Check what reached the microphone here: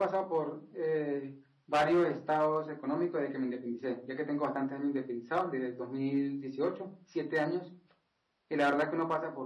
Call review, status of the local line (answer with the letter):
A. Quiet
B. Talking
A